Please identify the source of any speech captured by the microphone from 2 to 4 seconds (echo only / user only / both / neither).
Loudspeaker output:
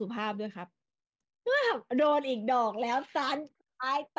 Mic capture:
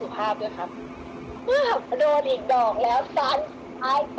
echo only